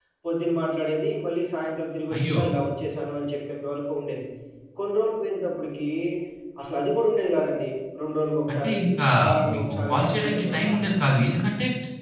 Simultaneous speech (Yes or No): Yes